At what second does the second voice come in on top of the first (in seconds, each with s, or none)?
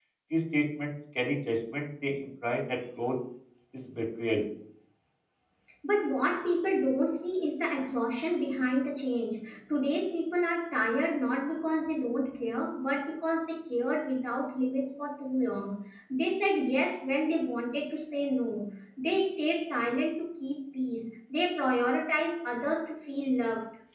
none